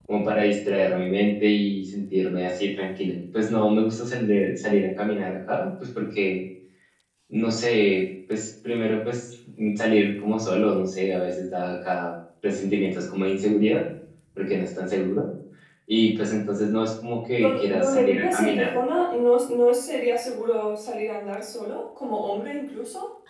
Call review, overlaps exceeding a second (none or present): present